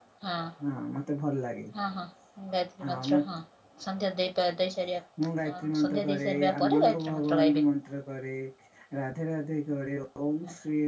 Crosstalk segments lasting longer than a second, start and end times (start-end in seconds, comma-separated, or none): 5.5-7.6